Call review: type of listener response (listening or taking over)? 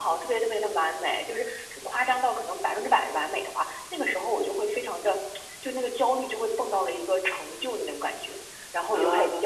listening